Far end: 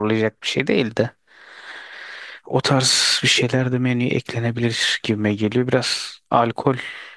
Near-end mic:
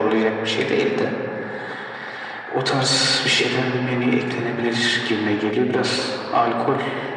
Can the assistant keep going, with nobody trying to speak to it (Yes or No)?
Yes